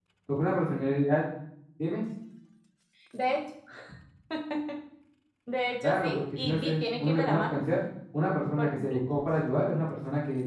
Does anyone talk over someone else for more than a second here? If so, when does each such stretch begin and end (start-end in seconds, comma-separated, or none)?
5.8-7.6